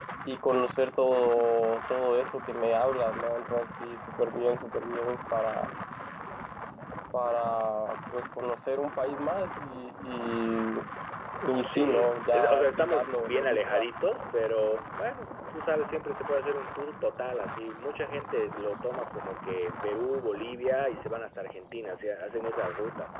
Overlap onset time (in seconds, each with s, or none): 11.6 s